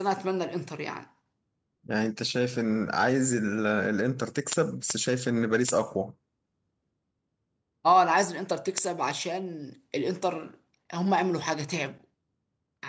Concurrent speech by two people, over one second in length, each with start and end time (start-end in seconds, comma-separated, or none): none